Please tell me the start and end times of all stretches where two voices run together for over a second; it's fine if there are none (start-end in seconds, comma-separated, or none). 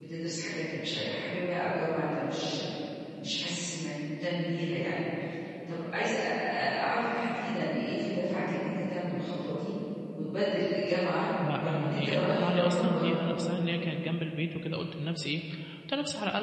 11.6-13.3